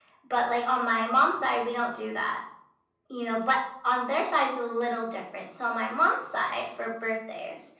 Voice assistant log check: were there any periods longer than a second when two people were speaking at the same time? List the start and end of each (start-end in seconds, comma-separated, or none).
none